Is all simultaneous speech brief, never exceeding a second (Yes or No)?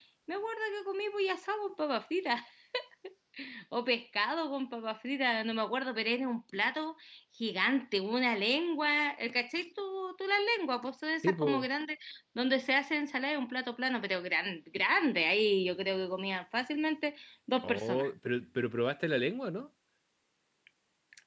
Yes